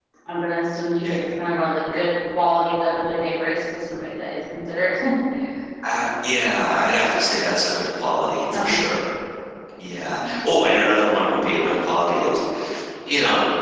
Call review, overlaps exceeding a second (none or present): none